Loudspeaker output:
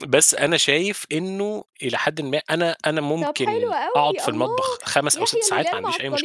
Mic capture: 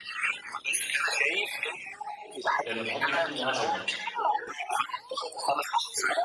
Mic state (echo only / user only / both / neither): both